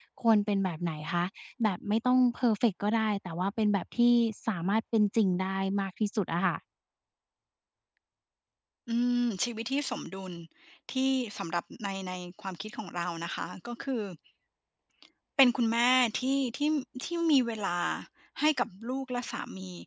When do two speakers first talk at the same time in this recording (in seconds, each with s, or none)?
none